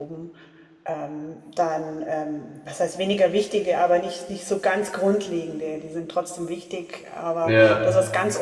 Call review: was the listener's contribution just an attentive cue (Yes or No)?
Yes